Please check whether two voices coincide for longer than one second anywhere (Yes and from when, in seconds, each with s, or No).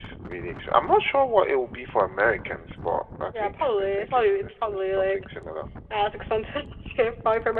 Yes, from 3.3 s